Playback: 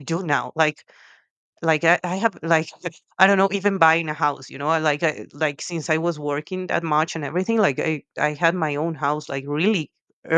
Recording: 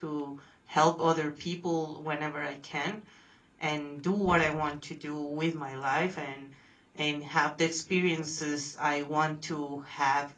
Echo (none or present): none